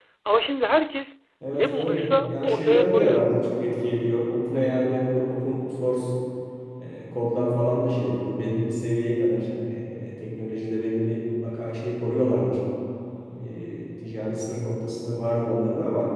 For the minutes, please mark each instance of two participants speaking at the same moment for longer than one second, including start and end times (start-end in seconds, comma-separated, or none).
1.5-3.2